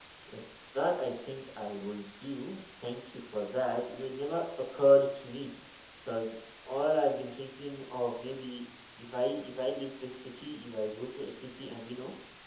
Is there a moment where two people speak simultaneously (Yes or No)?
No